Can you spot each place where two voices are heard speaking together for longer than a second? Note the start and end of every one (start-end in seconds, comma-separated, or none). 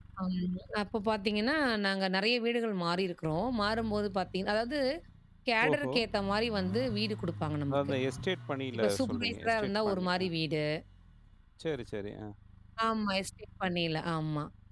8.8-10.2